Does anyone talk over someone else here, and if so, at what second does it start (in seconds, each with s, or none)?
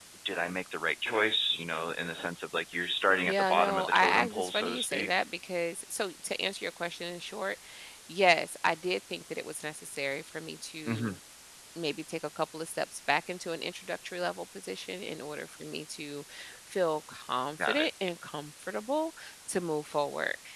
3.3 s